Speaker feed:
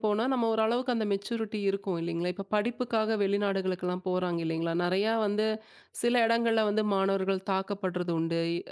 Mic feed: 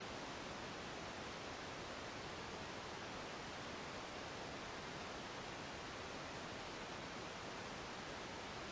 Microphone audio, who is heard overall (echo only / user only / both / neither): neither